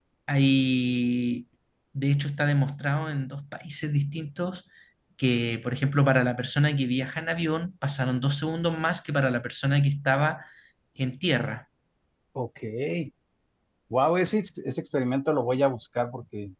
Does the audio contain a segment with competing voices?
No

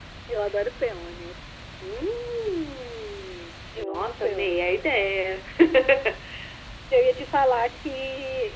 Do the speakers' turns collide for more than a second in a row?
Yes, from 3.8 s

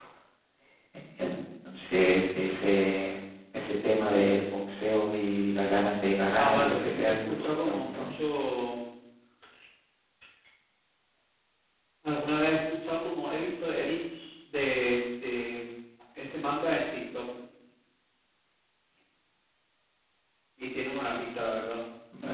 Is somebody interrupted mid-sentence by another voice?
Yes, from 6.4 s

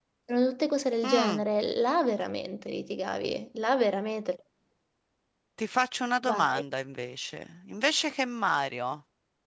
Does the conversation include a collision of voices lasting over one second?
No

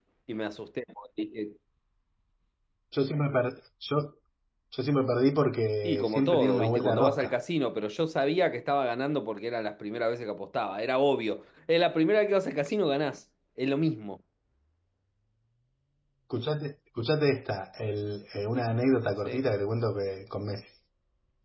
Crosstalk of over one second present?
Yes, from 5.8 s

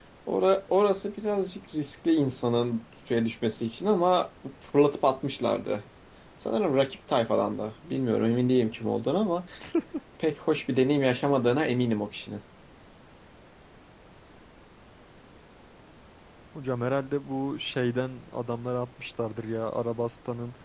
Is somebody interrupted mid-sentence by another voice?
No

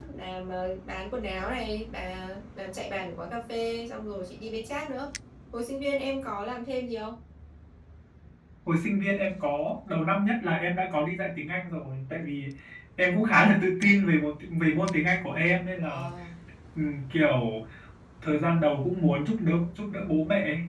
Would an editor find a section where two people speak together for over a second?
No

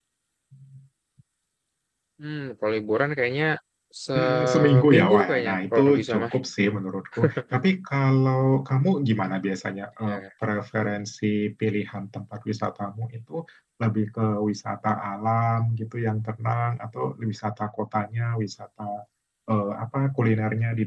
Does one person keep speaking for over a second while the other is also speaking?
Yes, from 4.2 s

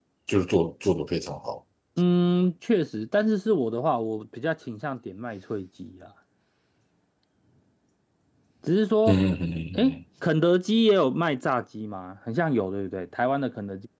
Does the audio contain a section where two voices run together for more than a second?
No

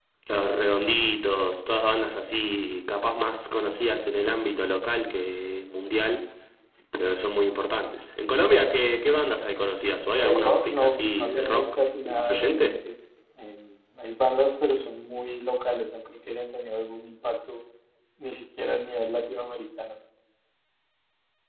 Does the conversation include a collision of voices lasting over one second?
Yes, from 10.1 s

